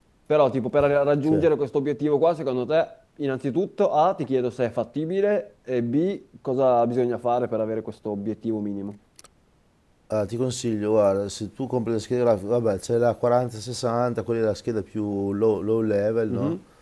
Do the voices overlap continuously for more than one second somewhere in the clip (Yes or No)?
No